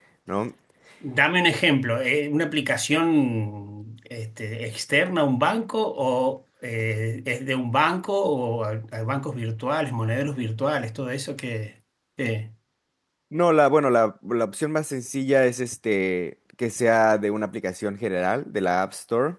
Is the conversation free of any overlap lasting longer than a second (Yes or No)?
Yes